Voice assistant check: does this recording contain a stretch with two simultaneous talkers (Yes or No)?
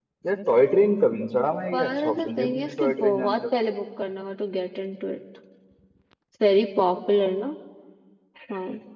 Yes